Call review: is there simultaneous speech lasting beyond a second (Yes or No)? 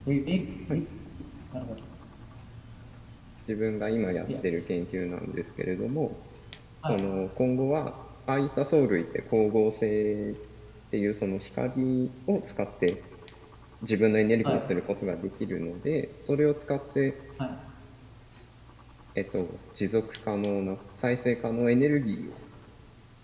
No